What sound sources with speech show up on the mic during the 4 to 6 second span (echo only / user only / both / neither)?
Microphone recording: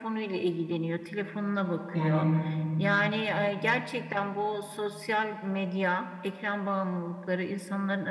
echo only